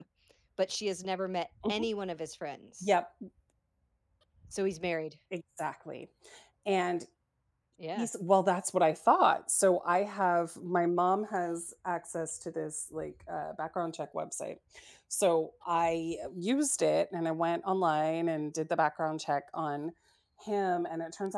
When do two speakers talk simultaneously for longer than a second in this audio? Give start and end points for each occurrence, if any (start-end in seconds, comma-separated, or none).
none